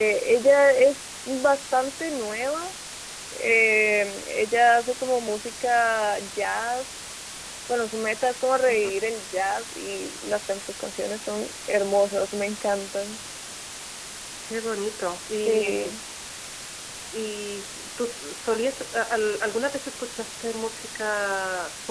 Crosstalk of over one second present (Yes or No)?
No